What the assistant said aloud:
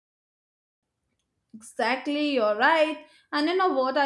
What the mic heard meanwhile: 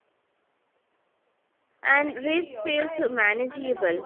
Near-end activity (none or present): present